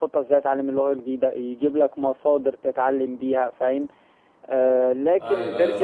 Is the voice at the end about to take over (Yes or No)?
Yes